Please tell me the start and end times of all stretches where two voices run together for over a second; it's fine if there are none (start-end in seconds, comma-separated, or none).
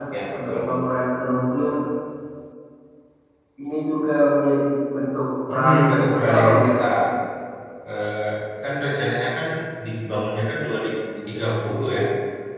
5.5-6.7